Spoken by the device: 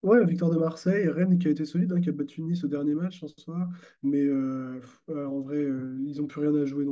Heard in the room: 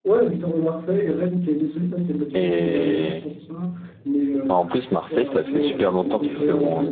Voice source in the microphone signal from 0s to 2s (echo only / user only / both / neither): echo only